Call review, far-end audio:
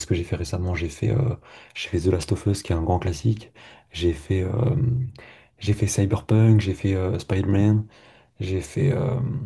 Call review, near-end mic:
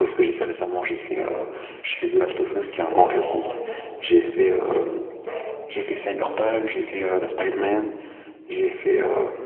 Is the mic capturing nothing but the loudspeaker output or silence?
No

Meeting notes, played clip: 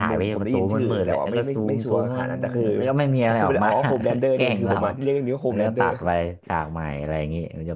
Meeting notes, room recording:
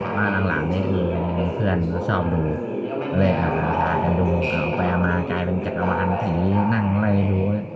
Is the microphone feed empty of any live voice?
No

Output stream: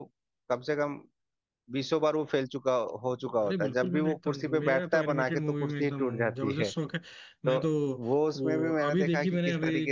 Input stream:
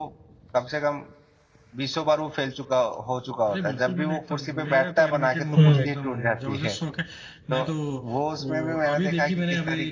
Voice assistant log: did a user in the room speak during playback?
Yes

